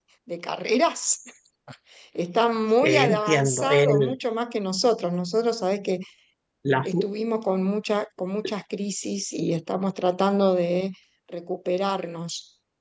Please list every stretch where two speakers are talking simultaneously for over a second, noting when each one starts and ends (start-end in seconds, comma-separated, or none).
2.8-4.2